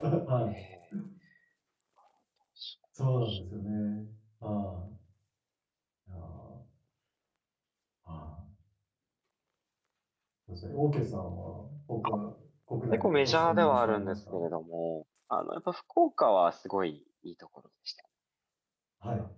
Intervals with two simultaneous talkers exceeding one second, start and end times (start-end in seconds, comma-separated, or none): 12.9-14.4